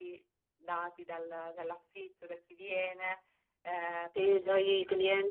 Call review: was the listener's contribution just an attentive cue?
No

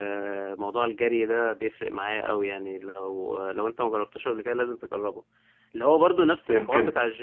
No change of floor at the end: Yes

